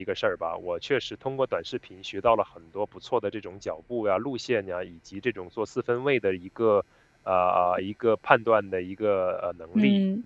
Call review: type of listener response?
taking over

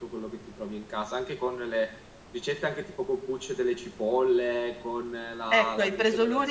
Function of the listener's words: taking over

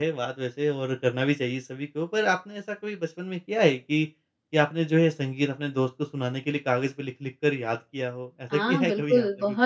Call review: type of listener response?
taking over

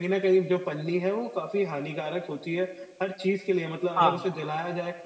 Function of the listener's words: listening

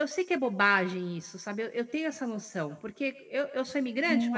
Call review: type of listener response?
taking over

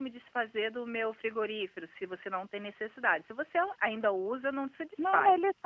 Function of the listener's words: taking over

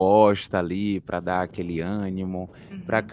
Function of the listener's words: listening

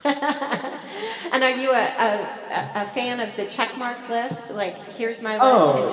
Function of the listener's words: taking over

